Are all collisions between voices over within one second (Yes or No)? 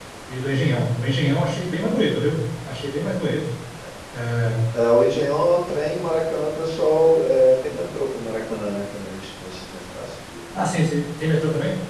Yes